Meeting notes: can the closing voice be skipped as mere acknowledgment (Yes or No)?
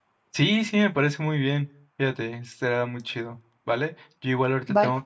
Yes